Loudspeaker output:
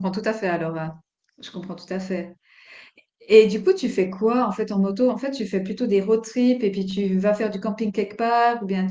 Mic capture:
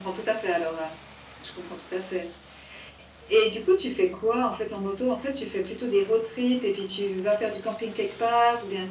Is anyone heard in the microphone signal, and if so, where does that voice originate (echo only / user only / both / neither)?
echo only